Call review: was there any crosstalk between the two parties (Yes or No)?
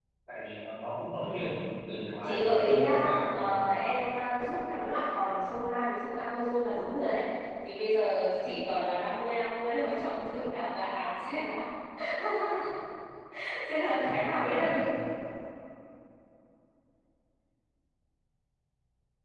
Yes